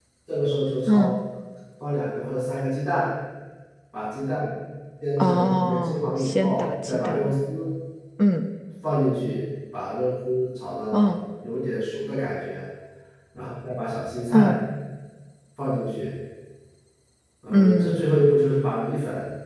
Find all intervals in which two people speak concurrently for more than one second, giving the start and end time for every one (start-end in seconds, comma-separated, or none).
5.2-7.3